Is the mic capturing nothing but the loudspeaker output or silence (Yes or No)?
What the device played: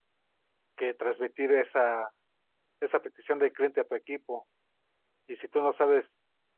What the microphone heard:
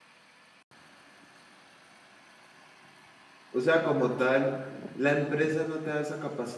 No